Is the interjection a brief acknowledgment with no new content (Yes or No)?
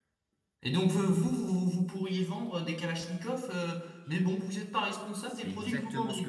No